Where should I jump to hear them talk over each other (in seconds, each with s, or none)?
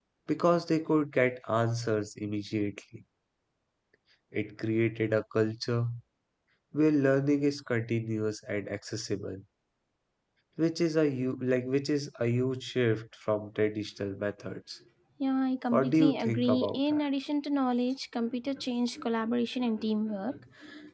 15.7 s